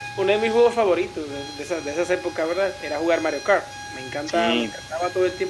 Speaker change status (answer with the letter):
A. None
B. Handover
A